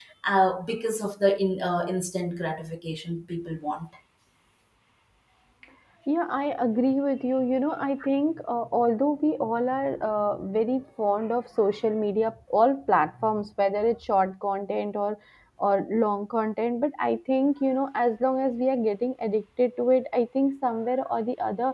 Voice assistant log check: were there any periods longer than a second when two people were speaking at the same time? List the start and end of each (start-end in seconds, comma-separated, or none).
none